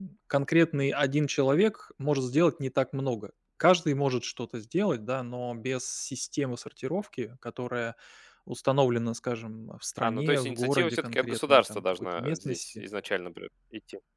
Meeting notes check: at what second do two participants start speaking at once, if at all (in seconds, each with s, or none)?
10.0 s